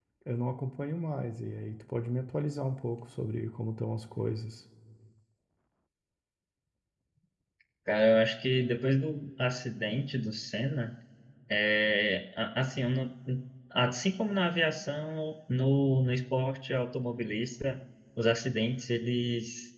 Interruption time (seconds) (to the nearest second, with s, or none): none